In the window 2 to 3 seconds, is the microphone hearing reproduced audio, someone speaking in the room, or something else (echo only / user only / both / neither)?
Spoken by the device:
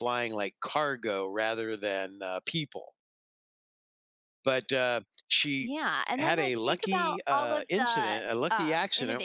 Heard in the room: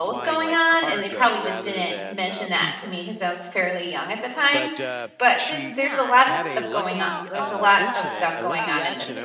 both